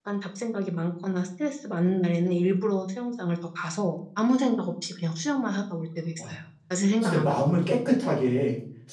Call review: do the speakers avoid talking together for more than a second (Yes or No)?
Yes